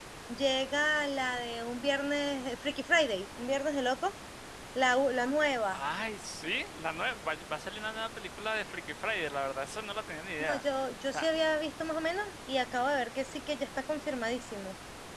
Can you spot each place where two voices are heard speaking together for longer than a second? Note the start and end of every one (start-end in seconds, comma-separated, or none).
none